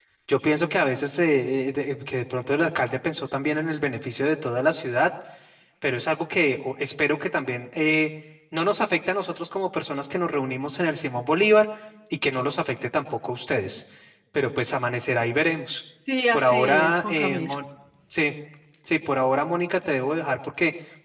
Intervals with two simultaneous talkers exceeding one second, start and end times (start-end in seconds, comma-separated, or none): 16.3-17.5